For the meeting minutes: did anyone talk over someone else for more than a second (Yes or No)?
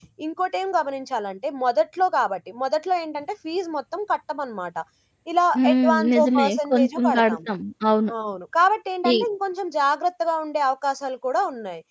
Yes